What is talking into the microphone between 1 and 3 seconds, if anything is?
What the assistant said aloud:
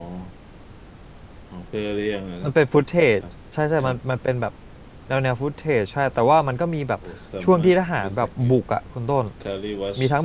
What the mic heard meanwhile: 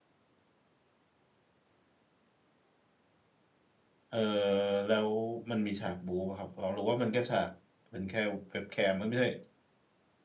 neither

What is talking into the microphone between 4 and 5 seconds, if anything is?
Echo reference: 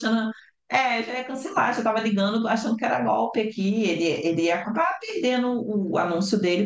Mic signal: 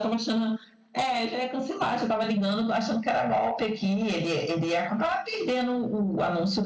echo only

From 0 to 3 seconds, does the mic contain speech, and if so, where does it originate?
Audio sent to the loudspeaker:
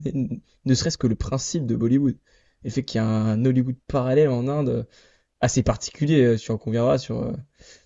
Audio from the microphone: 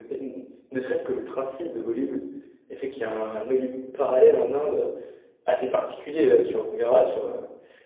echo only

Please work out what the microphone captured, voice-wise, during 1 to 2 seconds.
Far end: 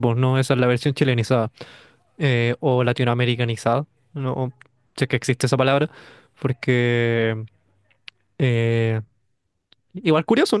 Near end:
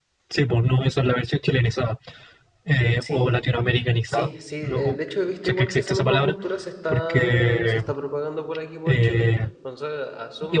echo only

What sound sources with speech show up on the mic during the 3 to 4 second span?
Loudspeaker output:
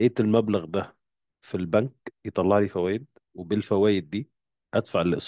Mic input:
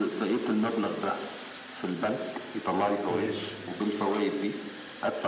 both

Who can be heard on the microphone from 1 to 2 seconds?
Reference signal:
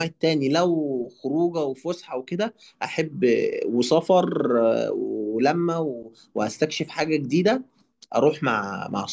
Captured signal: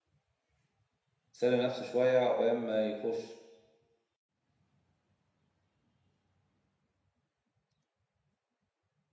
user only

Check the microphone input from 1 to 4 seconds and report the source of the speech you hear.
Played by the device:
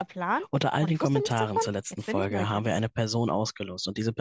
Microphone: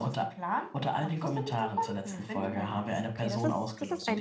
both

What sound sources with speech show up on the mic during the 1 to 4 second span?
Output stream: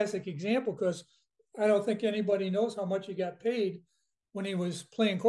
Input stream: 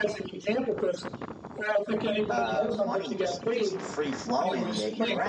both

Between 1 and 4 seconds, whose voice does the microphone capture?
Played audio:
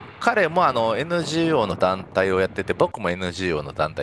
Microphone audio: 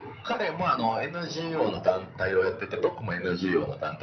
echo only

